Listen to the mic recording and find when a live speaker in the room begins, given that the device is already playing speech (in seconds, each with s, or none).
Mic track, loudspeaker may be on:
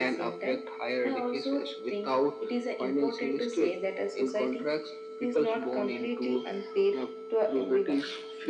none